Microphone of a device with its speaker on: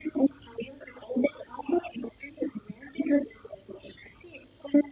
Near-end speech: none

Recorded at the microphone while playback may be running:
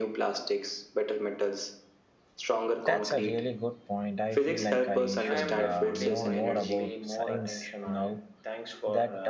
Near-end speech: present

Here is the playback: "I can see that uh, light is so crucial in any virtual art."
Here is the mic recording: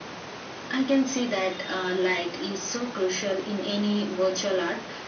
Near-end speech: none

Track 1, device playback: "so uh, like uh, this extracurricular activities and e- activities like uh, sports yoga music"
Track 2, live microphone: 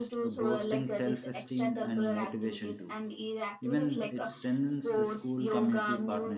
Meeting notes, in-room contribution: present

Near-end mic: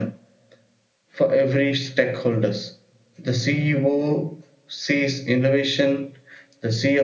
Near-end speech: none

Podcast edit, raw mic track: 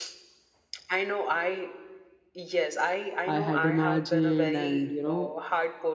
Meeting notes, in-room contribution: present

